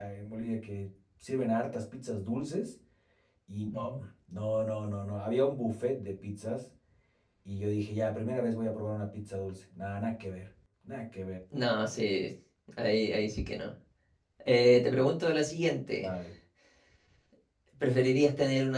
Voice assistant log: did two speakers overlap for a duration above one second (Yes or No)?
No